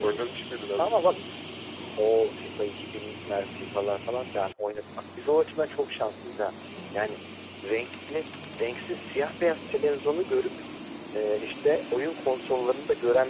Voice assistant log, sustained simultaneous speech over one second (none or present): none